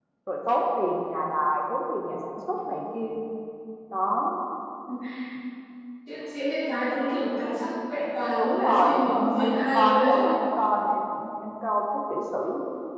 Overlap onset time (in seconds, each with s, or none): 8.4 s